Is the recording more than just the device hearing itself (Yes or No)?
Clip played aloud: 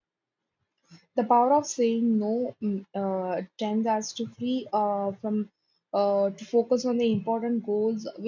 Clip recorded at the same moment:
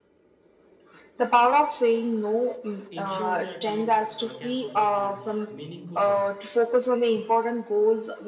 Yes